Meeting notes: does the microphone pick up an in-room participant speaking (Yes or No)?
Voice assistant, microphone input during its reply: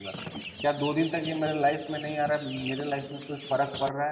Yes